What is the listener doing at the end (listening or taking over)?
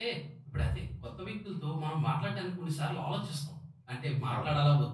listening